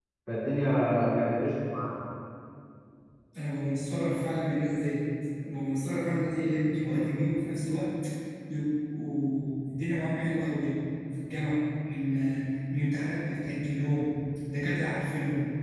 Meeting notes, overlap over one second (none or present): none